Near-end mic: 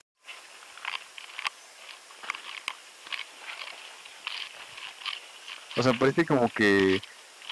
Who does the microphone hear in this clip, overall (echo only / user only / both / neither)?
user only